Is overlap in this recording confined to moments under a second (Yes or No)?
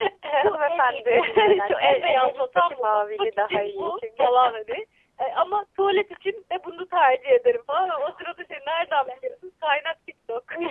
No